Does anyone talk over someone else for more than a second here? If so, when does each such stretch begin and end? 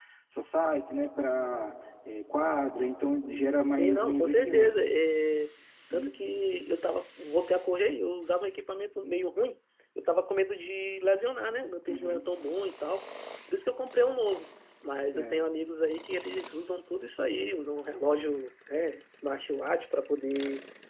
3.6-4.8

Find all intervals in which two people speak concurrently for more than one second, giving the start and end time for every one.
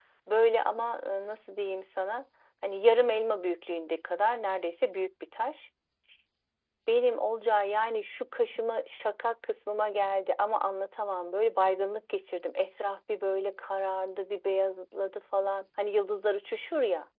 none

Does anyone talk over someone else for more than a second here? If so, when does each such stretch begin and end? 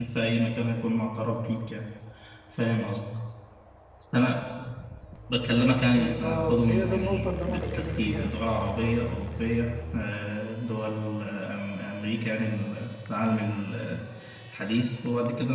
6.0-8.3

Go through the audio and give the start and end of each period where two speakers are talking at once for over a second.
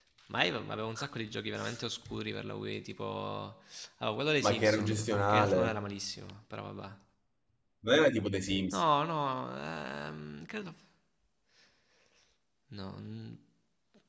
4.4-6.0

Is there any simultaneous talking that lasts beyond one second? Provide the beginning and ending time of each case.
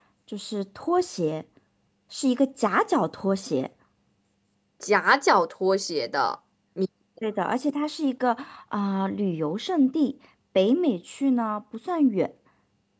none

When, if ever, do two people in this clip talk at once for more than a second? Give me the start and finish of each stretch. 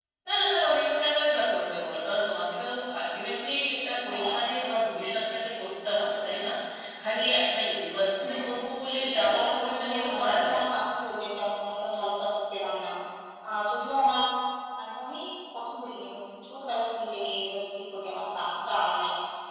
9.0-10.7

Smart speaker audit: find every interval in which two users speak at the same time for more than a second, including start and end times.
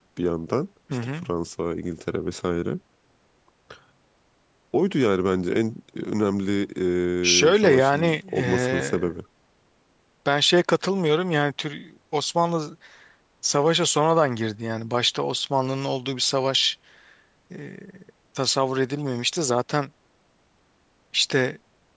7.5-9.1

